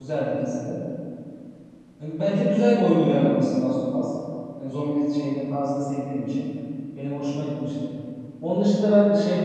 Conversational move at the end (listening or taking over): listening